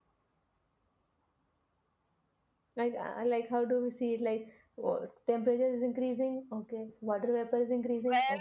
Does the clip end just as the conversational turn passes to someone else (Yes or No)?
Yes